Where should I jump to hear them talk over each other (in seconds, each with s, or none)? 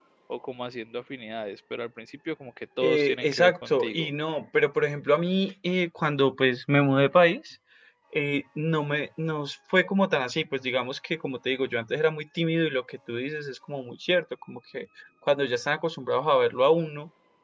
2.8 s